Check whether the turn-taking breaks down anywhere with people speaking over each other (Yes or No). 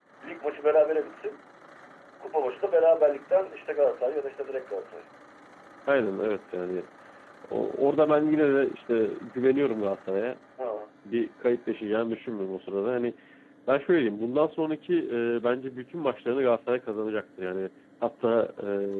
No